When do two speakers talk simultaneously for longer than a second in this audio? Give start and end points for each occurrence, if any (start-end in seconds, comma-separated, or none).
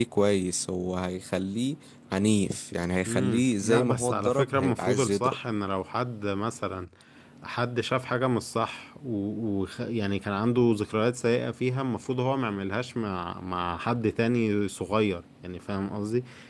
3.1-5.3